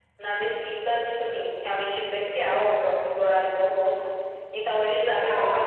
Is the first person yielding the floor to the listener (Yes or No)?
No